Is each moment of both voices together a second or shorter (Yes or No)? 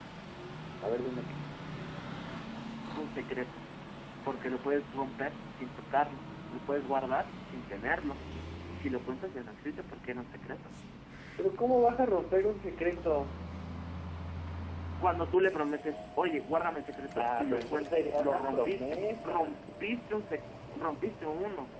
No